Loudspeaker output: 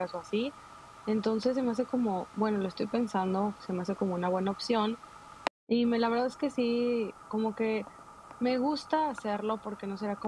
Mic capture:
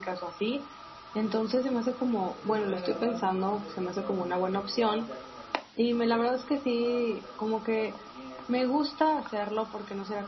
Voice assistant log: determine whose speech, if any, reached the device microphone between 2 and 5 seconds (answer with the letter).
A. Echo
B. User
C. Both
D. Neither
C